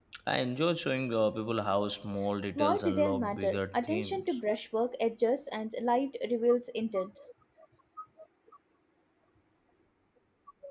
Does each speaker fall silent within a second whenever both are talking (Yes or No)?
No